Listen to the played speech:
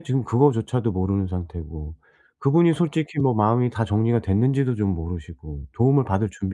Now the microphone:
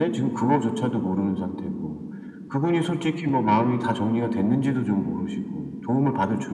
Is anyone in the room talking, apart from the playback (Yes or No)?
No